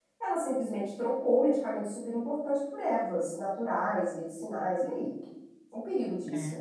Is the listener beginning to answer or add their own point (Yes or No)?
Yes